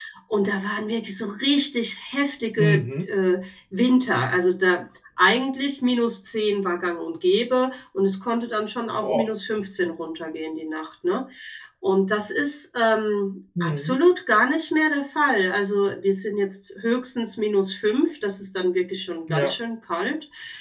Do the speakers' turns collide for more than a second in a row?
No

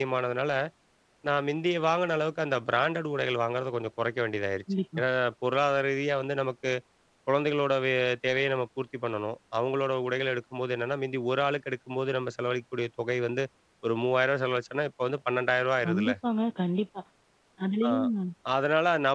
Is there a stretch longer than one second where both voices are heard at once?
No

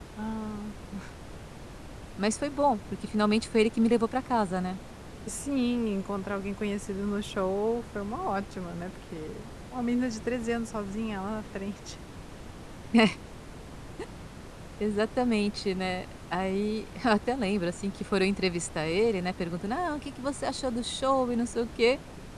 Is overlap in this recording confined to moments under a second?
Yes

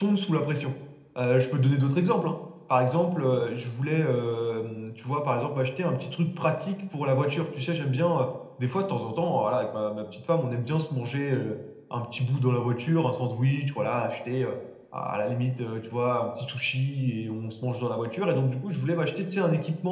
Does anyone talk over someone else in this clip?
No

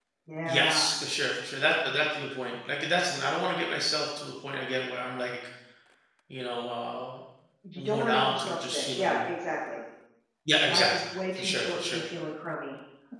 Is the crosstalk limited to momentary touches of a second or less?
No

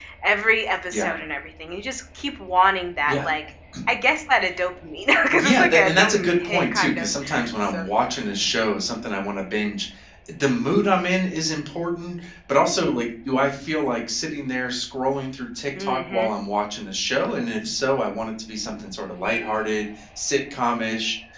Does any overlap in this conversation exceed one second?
Yes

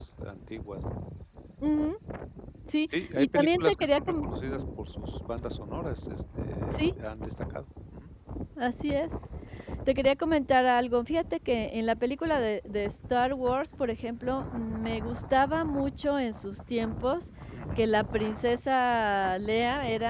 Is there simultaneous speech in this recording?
Yes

